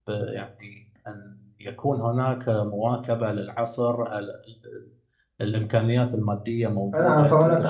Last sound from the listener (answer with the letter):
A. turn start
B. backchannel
A